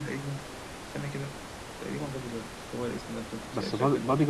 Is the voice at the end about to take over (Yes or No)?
Yes